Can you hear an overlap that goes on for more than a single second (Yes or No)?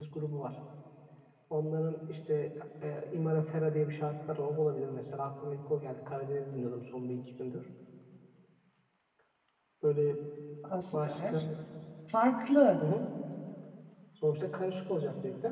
No